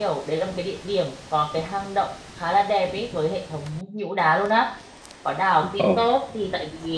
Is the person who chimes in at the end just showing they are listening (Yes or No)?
Yes